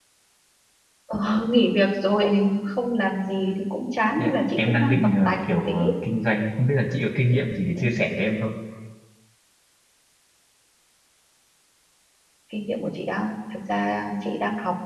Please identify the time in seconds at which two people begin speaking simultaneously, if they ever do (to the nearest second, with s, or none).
4 s